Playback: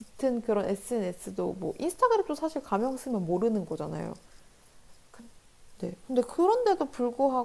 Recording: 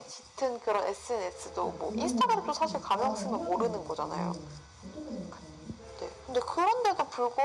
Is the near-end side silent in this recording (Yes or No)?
No